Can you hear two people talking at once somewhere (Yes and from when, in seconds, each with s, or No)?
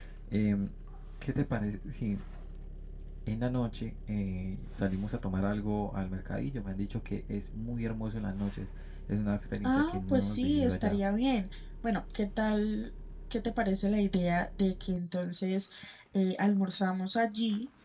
Yes, from 9.6 s